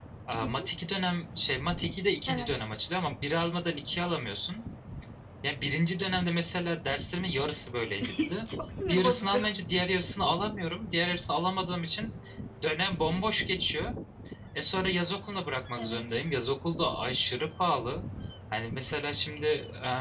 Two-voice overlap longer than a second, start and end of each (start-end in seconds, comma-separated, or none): none